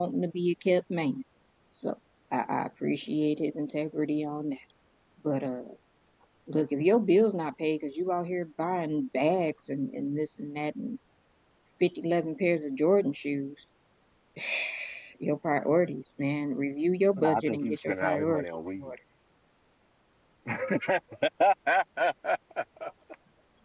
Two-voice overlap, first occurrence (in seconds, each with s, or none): 17.2 s